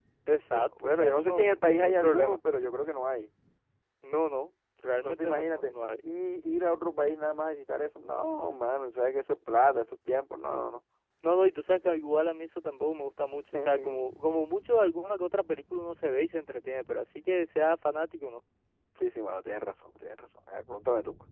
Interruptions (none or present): present